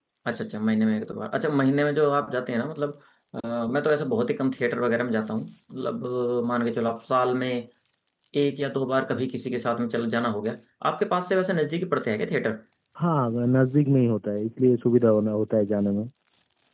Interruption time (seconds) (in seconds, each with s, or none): none